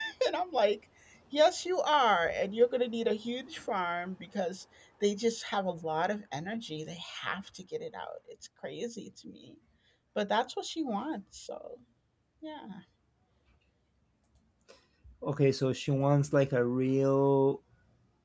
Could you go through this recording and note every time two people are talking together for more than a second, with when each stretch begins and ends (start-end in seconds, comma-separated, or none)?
none